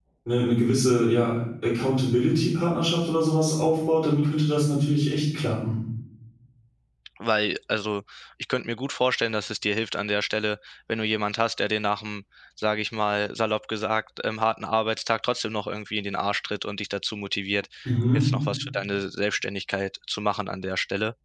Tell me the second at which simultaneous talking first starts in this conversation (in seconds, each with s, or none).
none